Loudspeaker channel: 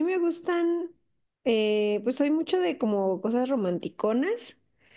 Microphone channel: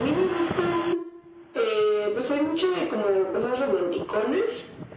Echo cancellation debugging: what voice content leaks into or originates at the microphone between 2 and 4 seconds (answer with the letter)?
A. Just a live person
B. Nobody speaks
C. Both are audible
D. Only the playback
D